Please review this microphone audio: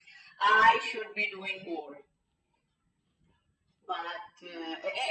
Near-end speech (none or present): none